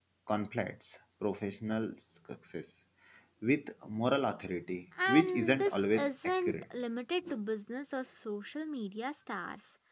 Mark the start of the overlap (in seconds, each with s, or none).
4.9 s